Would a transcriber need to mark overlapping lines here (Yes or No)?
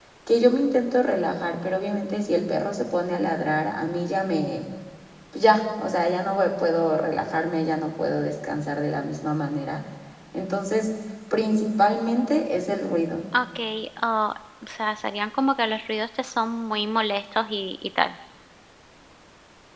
No